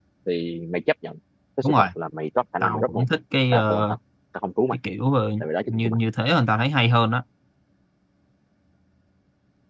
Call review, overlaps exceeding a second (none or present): none